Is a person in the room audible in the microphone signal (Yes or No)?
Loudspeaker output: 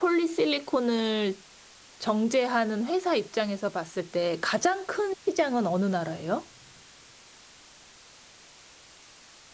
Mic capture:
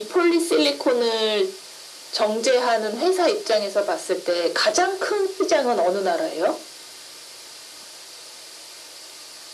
No